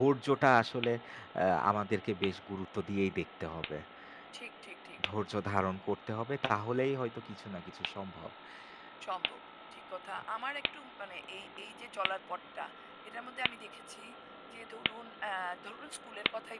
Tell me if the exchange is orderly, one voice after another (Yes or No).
Yes